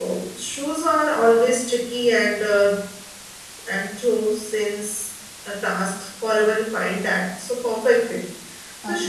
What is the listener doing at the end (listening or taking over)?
listening